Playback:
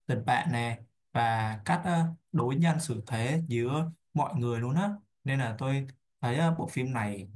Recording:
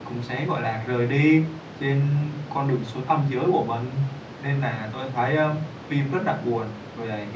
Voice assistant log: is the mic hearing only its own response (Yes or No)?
No